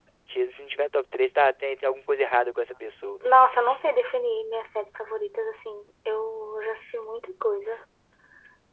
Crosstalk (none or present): none